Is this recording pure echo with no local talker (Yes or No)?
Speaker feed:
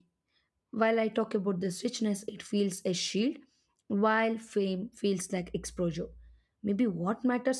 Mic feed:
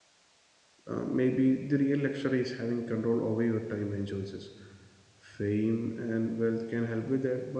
No